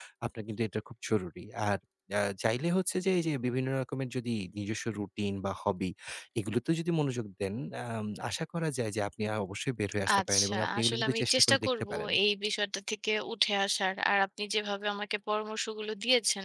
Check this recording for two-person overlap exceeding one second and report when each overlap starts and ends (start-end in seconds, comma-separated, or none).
10.2-12.1